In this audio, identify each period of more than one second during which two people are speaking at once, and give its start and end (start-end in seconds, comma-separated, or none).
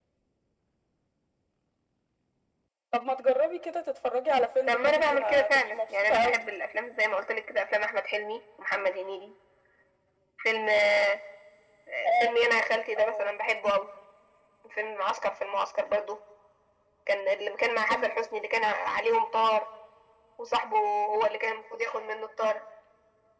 4.7-6.4